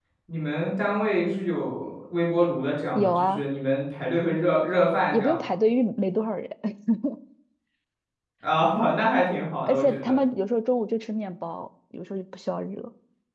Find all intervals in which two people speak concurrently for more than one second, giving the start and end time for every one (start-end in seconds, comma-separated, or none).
none